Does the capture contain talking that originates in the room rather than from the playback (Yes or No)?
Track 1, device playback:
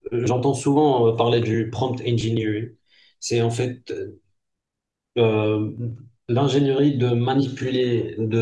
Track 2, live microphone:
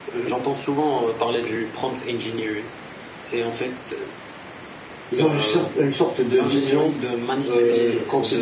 Yes